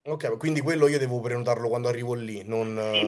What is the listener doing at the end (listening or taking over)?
taking over